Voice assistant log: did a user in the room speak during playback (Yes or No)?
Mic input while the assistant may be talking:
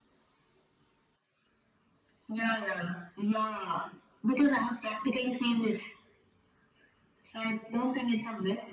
No